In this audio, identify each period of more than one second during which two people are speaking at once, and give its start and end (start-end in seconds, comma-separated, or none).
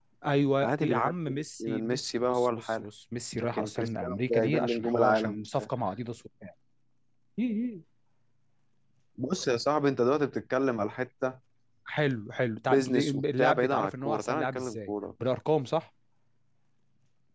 0.6-2.9, 3.5-5.4, 12.7-14.9